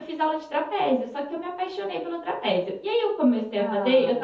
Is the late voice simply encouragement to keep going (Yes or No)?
Yes